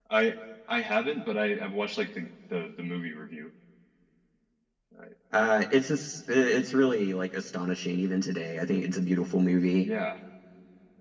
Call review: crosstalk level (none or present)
none